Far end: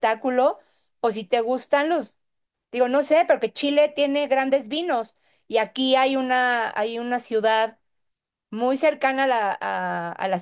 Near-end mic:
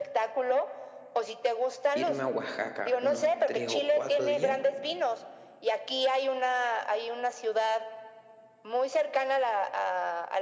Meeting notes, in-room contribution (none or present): present